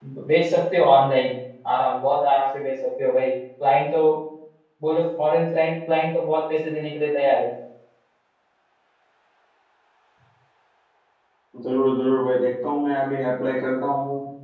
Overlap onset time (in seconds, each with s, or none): none